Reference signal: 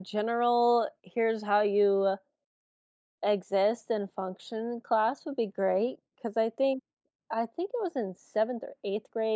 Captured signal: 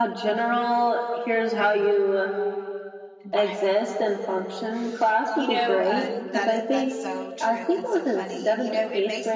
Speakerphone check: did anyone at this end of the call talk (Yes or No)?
Yes